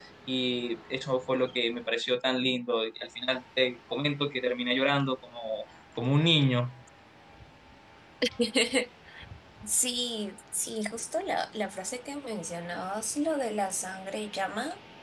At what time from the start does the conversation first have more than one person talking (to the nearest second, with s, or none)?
none